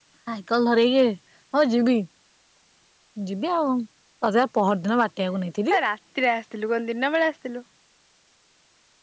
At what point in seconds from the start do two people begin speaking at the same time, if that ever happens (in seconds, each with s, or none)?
none